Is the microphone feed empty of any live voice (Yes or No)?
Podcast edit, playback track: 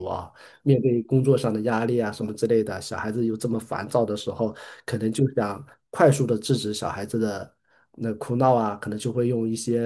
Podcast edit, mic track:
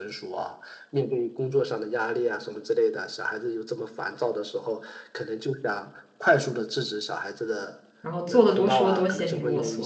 No